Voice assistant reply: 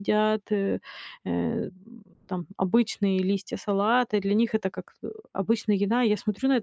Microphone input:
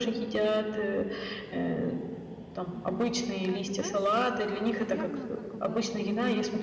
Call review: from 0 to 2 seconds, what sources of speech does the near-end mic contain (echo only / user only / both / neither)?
echo only